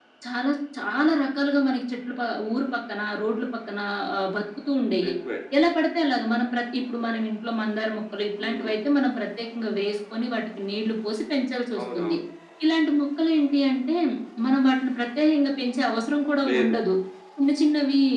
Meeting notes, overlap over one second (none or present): none